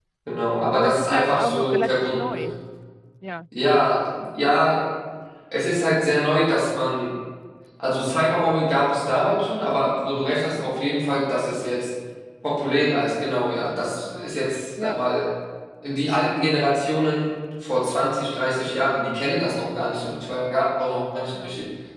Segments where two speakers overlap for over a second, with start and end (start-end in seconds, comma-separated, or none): 0.7-2.5